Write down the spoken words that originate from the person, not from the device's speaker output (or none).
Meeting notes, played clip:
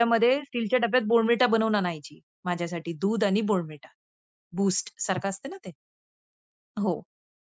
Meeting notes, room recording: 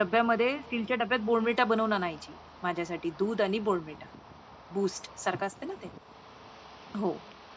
none